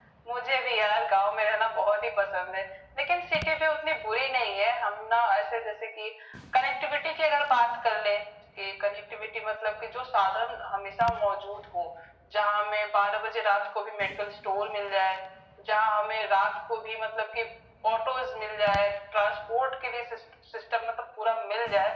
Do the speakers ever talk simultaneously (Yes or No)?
No